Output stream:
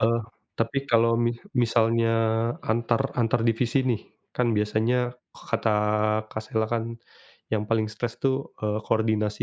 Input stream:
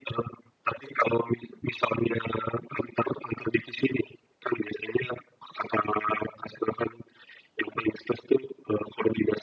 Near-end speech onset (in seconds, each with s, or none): none